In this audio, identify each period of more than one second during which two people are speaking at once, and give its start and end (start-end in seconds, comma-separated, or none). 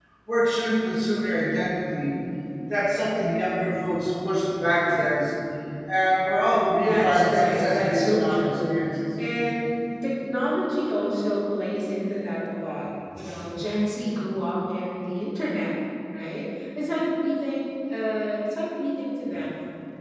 6.7-8.7